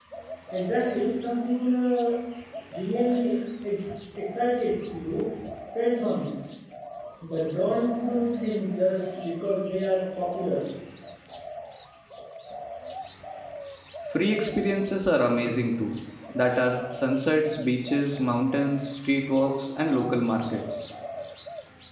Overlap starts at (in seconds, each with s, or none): none